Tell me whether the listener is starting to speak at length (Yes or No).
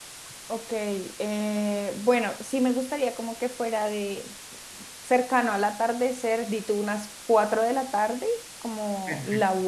No